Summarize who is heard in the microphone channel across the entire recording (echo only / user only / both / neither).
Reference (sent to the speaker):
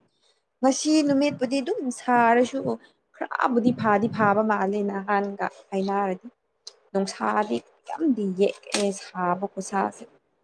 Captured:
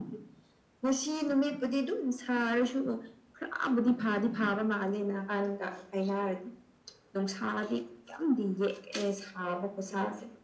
echo only